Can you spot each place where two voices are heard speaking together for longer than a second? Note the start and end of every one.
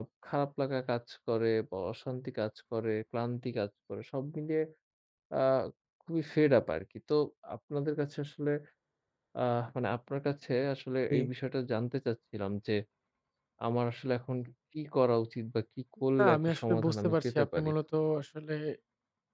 16.2-17.7

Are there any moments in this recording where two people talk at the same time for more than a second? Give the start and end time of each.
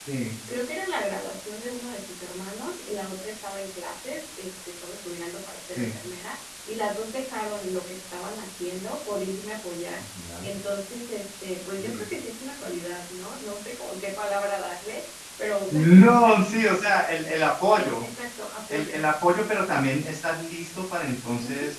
none

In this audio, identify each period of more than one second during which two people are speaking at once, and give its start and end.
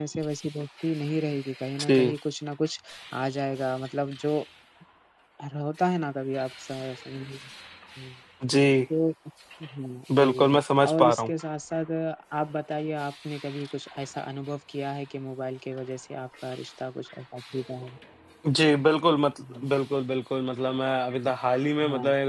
none

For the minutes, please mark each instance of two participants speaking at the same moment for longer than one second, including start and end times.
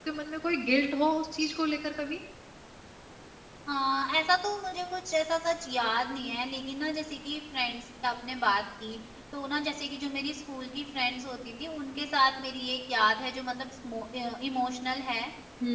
none

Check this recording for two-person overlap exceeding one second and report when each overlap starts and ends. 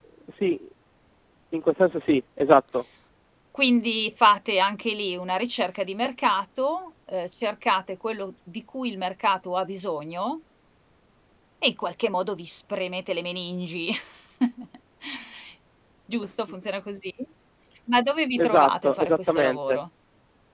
18.4-19.8

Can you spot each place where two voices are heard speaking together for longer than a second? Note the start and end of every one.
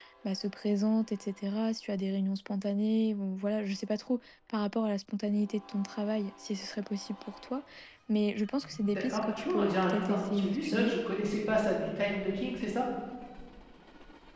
8.9-10.9

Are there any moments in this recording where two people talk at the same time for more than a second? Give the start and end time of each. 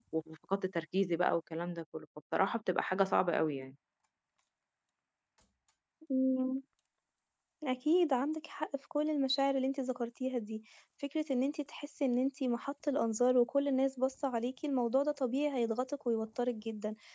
none

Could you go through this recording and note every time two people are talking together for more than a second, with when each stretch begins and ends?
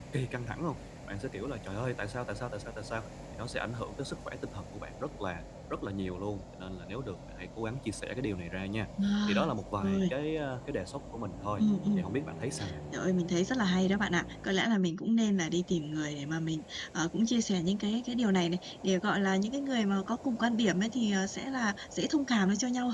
none

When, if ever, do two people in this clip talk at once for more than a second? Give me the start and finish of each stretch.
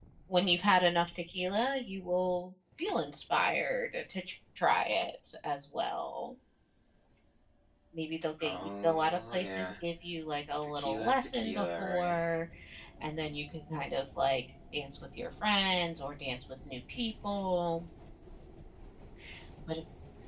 8.4-9.7, 10.6-12.2

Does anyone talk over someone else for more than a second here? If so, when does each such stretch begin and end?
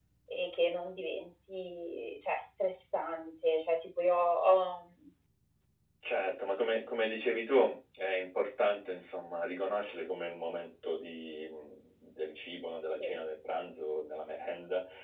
none

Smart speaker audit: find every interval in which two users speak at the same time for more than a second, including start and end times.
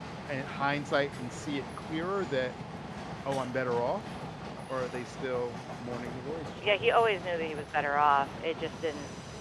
none

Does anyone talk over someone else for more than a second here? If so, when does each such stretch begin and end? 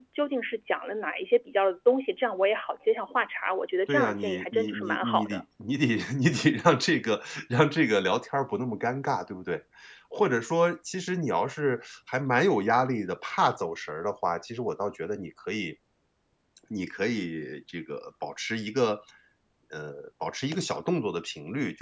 3.9-5.4

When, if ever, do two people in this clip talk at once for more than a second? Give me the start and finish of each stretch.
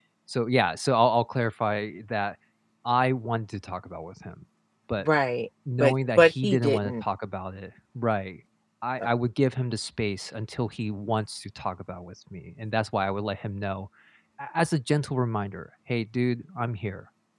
5.8-7.0

